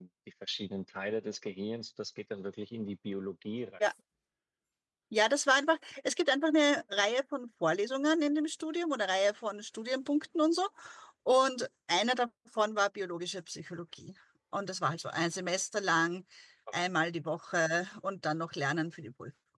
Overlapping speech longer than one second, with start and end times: none

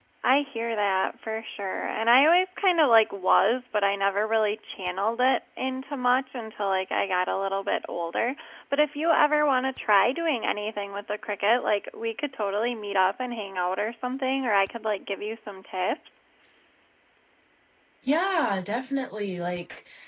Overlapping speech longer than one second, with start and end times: none

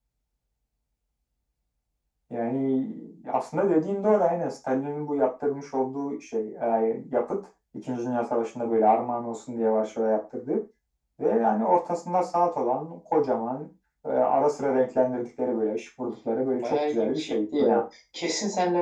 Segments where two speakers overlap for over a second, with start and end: 16.6-17.8

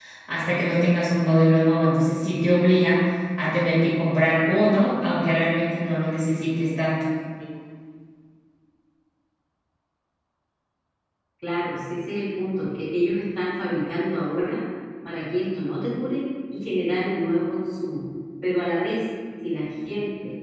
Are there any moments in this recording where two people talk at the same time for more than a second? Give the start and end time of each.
none

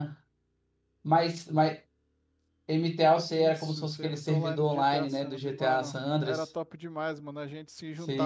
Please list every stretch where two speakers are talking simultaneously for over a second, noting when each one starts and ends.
3.3-6.5

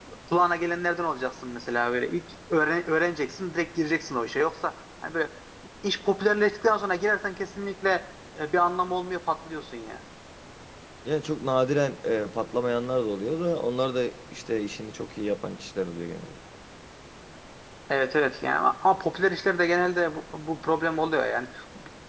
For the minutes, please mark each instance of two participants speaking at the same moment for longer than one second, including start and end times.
none

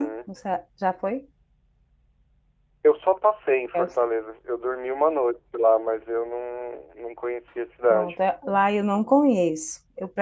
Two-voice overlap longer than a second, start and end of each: none

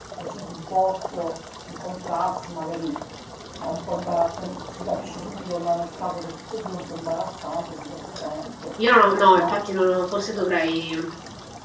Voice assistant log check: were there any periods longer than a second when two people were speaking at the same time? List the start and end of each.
none

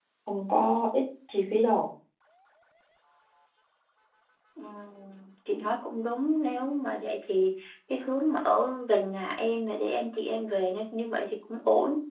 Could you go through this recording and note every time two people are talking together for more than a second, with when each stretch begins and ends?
none

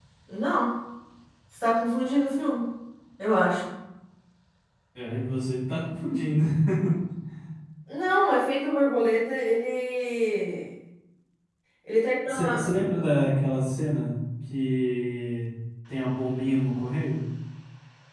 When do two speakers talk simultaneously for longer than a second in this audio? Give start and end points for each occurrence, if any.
none

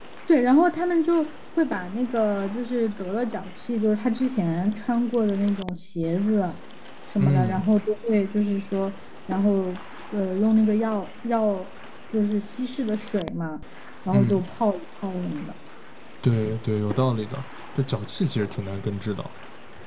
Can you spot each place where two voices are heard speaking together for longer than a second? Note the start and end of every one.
none

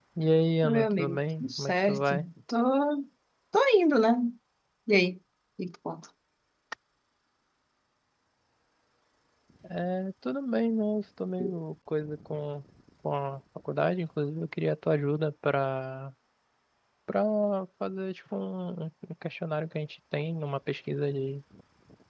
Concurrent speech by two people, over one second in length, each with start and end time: 0.6-2.2

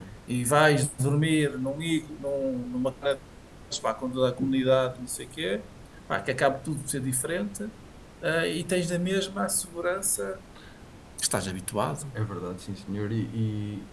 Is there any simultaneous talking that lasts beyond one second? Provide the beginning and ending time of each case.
none

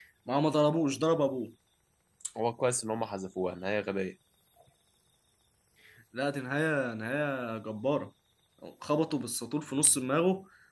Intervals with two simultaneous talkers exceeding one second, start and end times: none

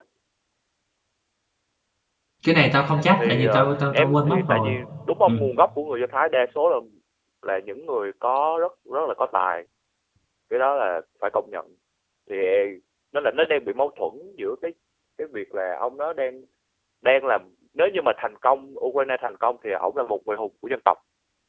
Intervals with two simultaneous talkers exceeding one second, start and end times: 3.2-4.7

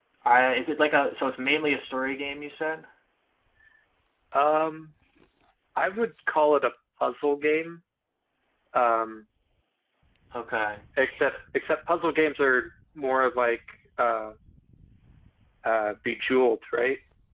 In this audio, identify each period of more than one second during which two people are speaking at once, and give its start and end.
none

